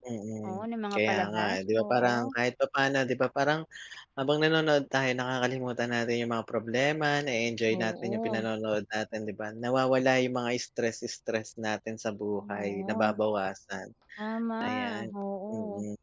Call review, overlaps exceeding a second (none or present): present